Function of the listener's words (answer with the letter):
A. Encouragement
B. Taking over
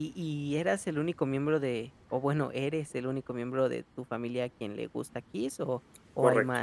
B